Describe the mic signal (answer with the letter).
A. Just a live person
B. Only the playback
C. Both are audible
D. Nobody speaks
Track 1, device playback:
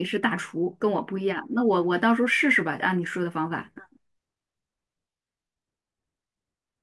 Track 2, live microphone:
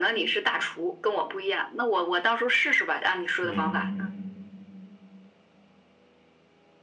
C